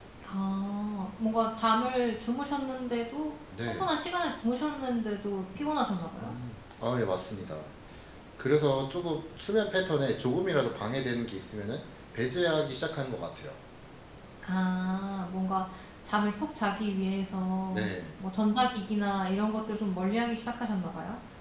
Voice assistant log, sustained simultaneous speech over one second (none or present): none